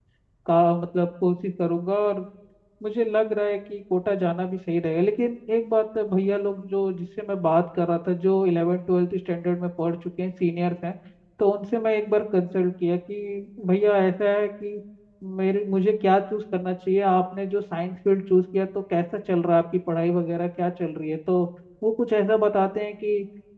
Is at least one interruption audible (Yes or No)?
No